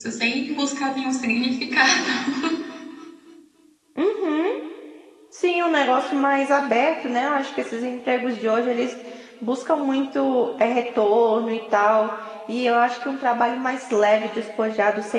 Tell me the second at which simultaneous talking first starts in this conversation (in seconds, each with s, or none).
none